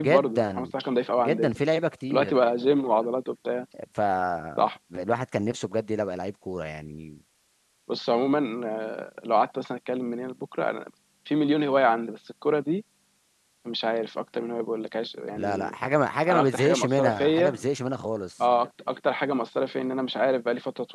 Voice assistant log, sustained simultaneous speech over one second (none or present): present